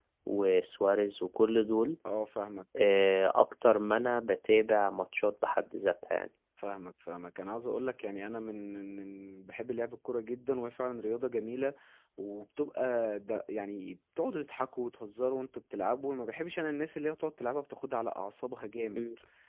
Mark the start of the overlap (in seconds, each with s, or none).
none